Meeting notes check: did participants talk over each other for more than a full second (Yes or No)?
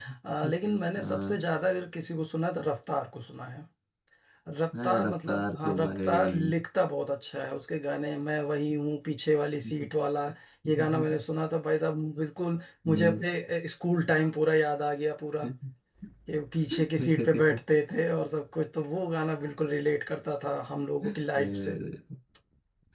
Yes